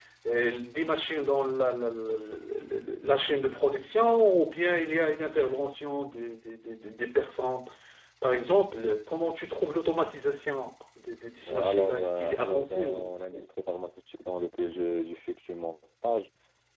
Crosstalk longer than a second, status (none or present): present